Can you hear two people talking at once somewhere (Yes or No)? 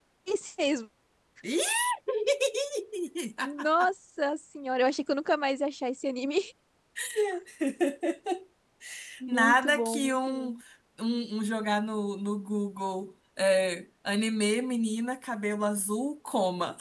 Yes